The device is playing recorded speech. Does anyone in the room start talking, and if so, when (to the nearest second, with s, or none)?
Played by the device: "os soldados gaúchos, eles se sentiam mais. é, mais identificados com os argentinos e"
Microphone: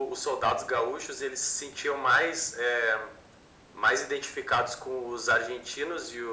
none